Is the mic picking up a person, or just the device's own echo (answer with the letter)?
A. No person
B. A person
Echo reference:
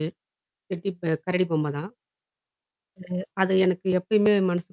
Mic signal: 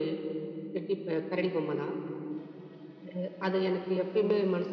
A